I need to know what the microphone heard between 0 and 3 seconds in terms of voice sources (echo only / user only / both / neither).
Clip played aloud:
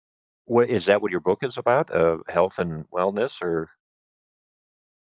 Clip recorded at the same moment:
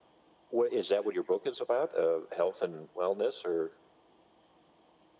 echo only